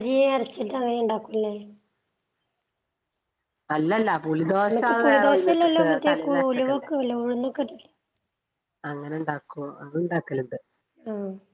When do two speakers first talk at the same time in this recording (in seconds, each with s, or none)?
4.7 s